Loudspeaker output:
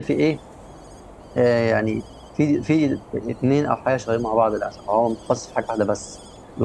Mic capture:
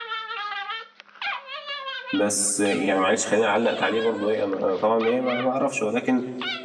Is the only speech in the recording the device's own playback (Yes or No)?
No